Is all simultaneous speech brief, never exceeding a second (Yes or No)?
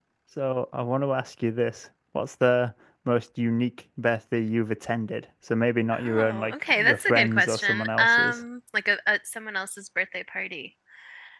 No